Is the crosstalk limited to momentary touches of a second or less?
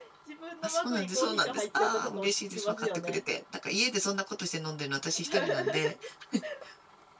No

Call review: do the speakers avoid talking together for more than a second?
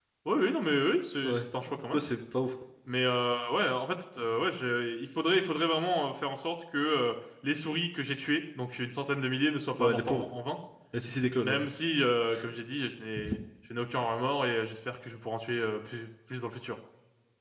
Yes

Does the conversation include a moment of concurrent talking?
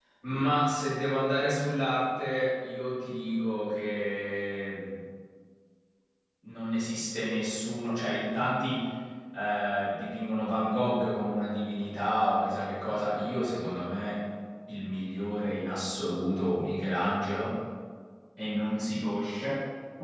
No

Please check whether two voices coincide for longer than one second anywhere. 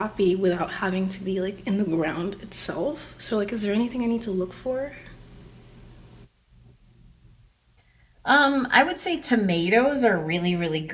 No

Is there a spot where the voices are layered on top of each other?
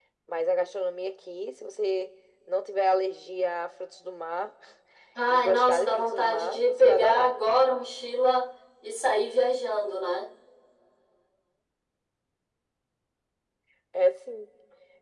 Yes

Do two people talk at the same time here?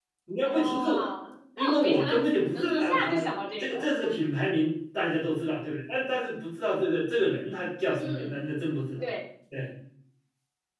Yes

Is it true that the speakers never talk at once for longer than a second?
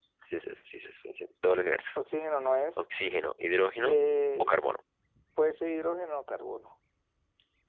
Yes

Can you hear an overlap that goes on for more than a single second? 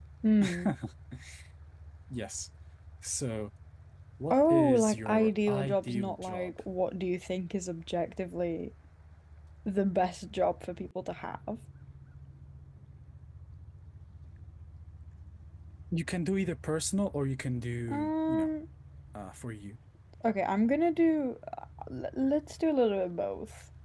Yes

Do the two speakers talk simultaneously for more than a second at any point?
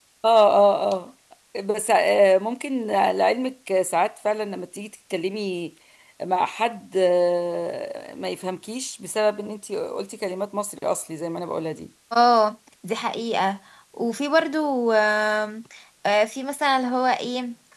No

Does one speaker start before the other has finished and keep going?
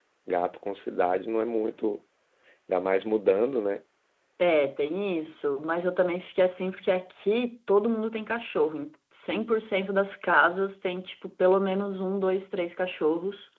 No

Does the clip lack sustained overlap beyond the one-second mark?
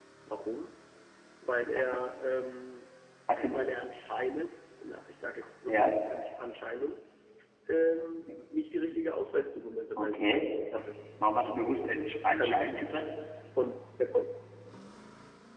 Yes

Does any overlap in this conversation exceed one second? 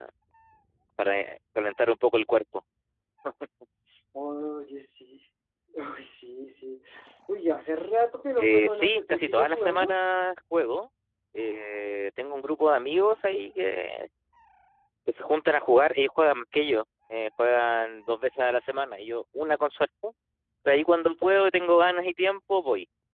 Yes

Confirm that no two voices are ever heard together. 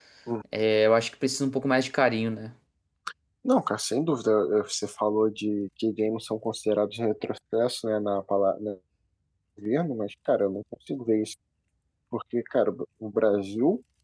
Yes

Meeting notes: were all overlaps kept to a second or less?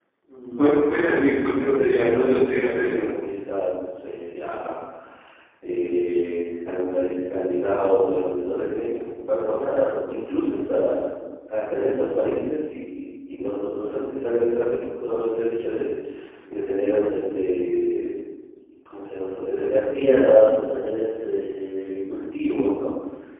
No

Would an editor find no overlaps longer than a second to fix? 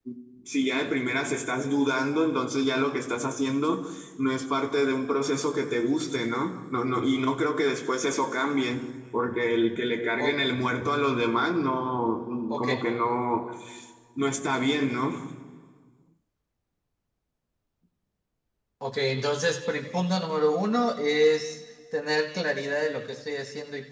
Yes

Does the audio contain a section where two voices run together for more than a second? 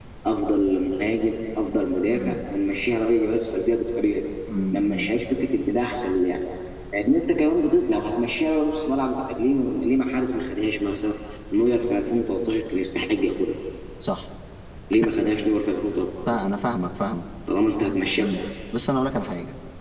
No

